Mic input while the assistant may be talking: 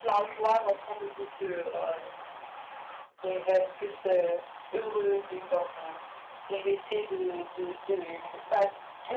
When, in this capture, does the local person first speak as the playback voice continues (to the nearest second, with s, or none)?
none